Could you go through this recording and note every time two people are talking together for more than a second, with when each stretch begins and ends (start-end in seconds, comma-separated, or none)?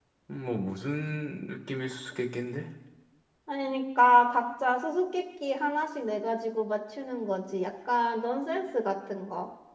none